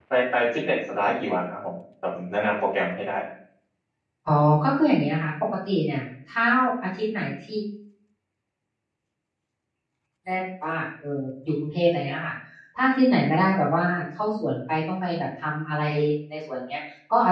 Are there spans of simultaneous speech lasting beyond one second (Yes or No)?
No